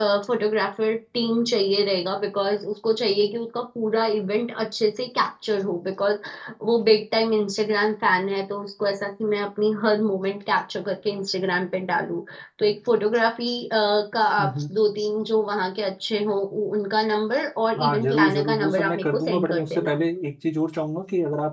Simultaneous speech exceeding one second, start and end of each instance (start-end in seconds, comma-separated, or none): 17.8-20.0